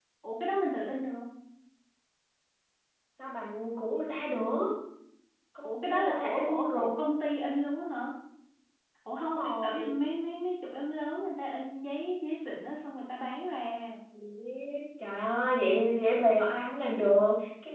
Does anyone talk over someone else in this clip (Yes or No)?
Yes